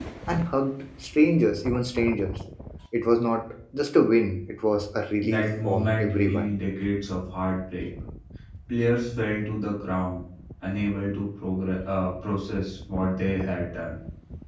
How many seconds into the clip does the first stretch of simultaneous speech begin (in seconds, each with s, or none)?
5.2 s